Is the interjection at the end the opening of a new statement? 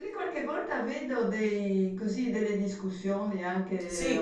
No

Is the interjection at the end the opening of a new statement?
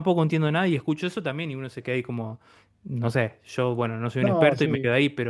No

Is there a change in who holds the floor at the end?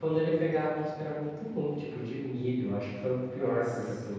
No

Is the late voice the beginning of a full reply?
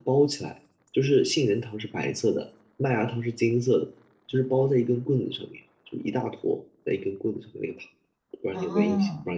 Yes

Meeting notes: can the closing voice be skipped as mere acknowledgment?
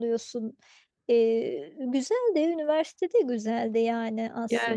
No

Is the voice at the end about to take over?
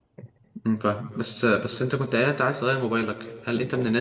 No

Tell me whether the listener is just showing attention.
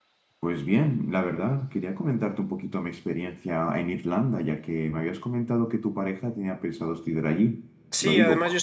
No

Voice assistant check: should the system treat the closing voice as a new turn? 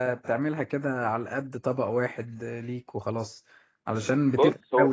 No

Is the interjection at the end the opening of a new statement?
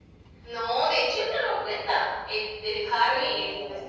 No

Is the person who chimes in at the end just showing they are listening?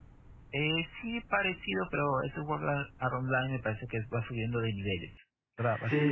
No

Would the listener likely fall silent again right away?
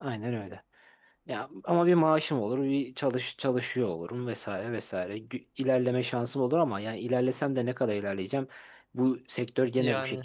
Yes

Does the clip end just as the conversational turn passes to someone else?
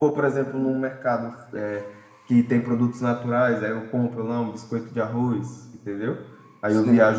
No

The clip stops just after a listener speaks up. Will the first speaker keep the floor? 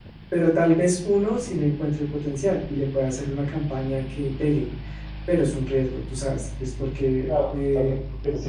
No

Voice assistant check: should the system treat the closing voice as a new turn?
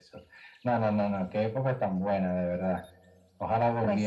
No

